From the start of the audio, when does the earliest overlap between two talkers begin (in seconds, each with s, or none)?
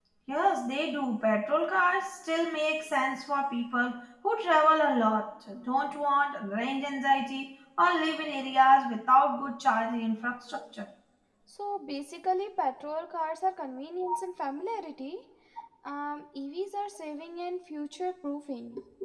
none